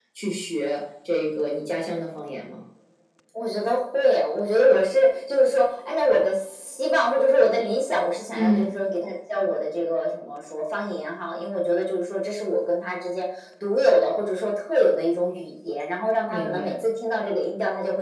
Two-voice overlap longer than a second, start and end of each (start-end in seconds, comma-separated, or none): none